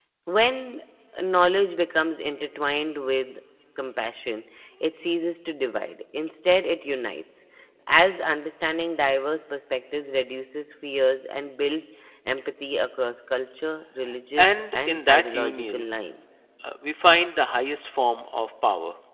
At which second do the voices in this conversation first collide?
14.4 s

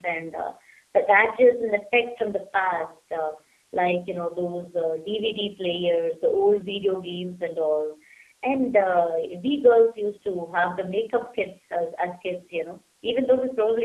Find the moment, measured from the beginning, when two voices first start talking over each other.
none

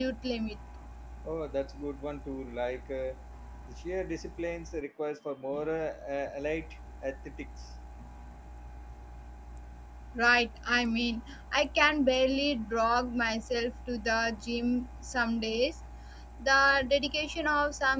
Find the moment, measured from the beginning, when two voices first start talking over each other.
none

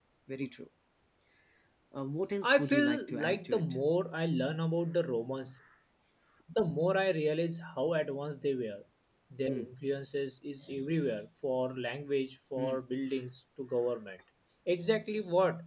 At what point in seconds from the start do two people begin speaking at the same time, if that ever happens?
2.4 s

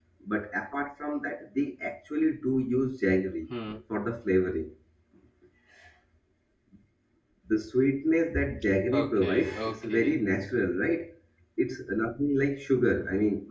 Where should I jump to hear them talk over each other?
8.9 s

